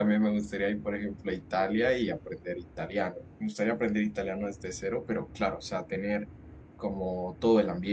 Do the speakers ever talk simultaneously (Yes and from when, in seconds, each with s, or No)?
No